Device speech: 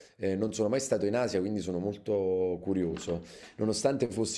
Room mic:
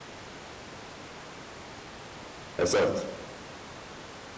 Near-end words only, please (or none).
Esatto,